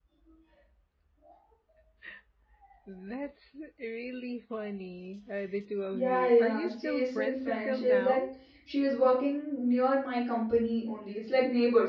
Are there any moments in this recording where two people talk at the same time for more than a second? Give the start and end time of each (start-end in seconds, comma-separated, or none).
5.9-8.2